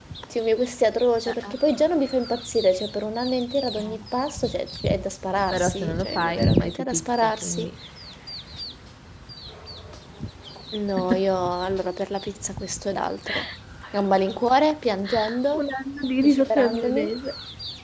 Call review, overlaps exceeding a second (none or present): present